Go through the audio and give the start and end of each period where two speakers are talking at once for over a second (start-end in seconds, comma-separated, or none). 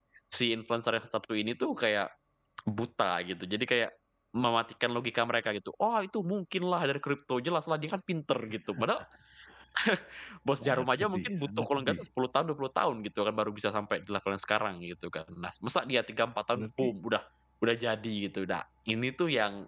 10.6-12.0